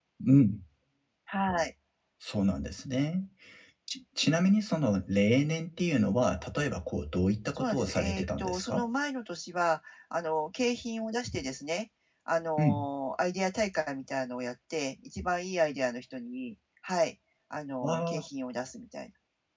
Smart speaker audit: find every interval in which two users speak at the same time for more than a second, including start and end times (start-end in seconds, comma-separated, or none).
7.5-8.8